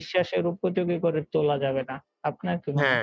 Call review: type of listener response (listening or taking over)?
taking over